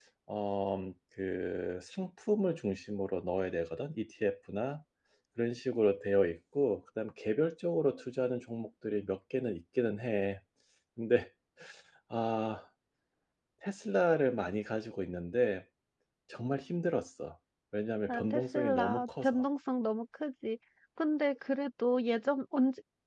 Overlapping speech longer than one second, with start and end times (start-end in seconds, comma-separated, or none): 18.1-19.4